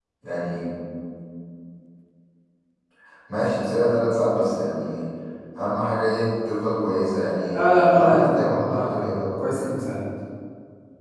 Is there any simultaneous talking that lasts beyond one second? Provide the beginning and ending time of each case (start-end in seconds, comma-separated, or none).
7.5-9.7